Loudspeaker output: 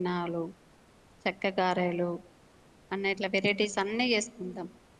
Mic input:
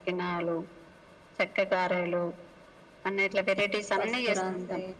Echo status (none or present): present